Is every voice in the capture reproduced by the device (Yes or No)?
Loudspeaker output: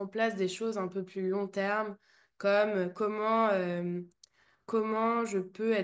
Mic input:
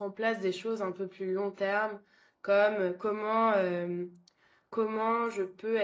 Yes